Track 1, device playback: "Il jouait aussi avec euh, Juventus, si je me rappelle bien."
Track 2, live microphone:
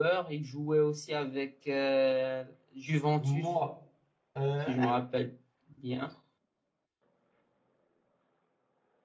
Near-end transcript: Moi. euh,

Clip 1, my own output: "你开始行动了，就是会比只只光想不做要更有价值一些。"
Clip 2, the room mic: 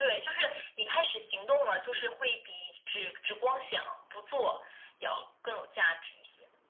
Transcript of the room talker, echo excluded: none

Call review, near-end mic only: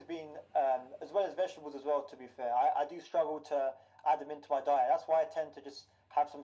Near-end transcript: none

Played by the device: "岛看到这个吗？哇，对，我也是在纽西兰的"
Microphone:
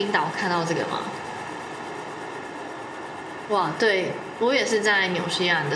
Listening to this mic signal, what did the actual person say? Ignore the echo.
none

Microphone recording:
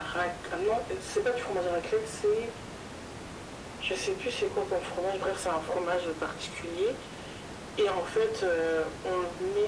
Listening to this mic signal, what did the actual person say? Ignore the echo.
none

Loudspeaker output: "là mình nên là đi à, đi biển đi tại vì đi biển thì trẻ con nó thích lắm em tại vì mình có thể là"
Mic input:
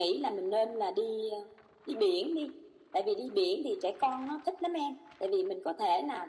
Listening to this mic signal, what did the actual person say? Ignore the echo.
none

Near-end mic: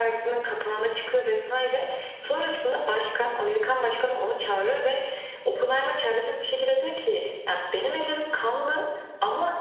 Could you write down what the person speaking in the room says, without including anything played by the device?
none

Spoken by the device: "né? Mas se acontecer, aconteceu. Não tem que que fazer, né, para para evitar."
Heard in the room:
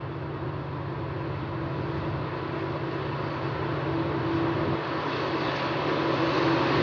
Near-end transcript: none

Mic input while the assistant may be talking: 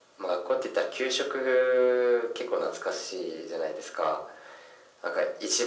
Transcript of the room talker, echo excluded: none

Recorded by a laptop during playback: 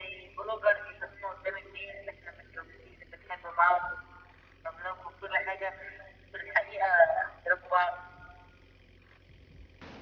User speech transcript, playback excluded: none

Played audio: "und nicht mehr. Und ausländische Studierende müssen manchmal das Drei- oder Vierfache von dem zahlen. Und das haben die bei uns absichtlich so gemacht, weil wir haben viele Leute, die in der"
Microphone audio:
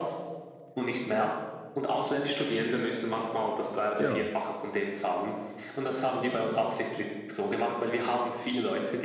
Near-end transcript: Ja,

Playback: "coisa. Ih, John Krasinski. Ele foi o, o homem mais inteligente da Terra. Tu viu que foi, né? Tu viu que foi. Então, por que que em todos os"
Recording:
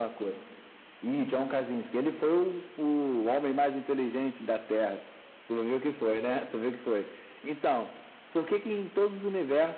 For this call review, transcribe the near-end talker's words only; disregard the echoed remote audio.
none

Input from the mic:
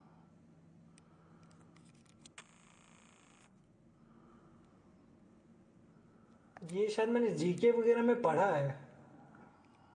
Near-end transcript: ये शायद मैंने जीके वगैरह में पढ़ा है

